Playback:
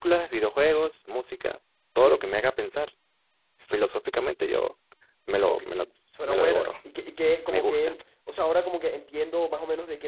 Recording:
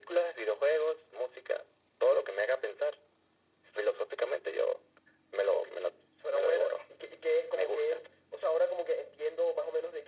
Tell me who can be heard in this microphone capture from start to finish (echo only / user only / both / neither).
echo only